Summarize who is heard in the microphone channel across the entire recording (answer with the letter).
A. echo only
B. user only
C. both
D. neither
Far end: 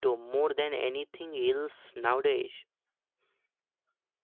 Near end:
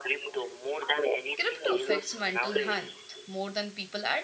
C